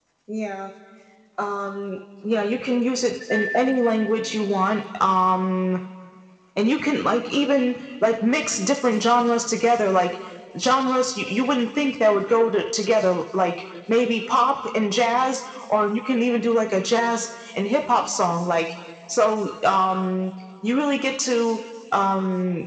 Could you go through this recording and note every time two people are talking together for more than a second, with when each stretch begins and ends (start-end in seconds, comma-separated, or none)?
none